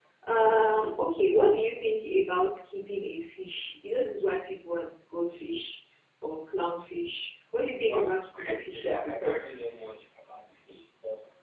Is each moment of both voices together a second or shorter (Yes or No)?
No